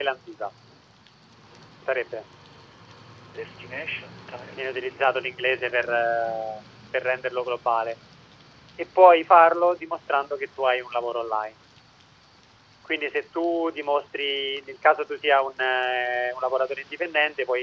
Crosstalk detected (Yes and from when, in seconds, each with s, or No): Yes, from 4.6 s